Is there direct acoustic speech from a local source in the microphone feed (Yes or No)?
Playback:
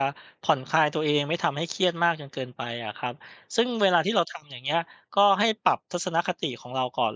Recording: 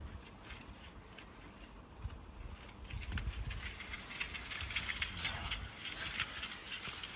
No